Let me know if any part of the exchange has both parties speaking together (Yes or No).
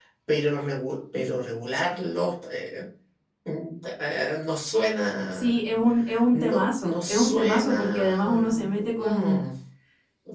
Yes